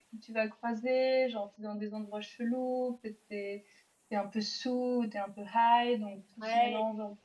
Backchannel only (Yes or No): No